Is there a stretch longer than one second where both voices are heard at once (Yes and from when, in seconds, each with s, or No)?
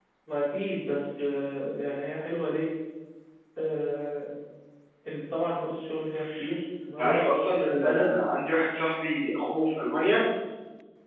No